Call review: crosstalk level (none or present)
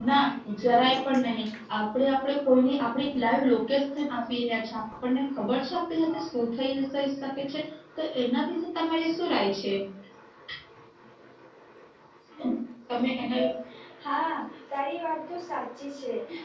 none